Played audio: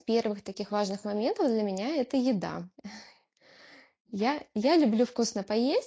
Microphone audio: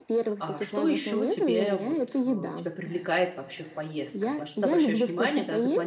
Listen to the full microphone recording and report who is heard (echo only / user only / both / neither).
both